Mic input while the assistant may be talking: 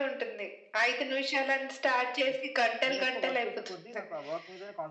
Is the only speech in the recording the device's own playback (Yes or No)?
No